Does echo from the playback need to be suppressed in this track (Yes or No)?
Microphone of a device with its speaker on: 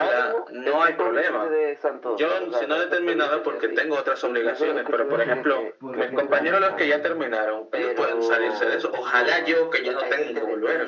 Yes